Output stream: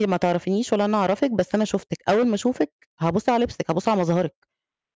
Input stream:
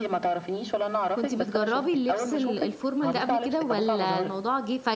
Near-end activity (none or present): present